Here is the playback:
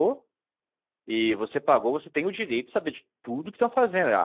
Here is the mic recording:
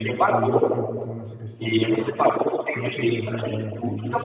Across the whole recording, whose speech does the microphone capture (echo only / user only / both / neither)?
both